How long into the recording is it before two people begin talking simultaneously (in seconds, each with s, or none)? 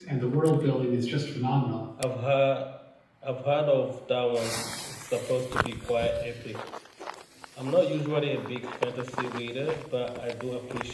none